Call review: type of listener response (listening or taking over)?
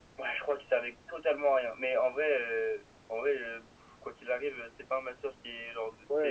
taking over